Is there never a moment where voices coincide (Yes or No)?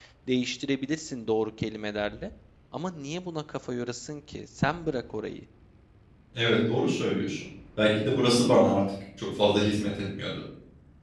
Yes